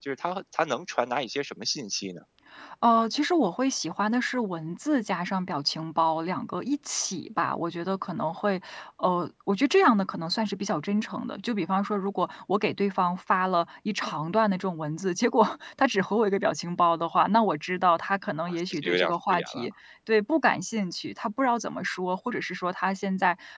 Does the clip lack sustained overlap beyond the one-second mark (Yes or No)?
No